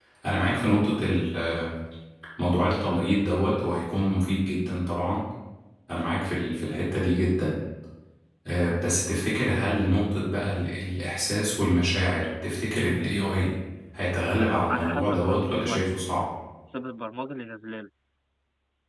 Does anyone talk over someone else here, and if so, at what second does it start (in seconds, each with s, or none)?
14.4 s